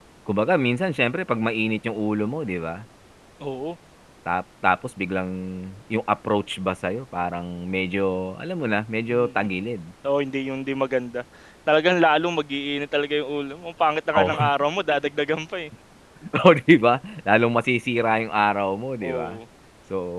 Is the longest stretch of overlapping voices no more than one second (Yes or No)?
Yes